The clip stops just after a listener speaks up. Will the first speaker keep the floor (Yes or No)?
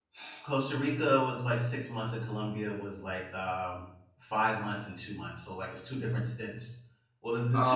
Yes